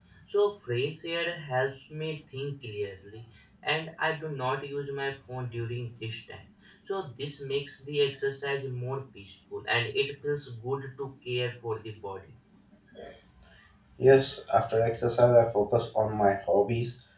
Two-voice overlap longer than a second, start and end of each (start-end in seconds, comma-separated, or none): none